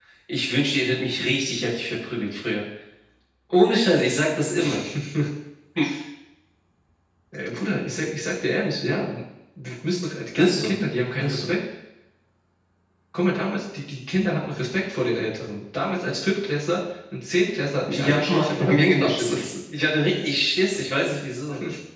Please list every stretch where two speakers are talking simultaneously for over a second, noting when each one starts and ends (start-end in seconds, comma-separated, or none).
17.9-19.5